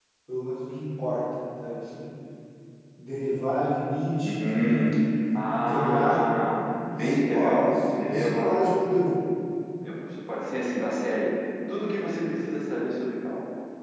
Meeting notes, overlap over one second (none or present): present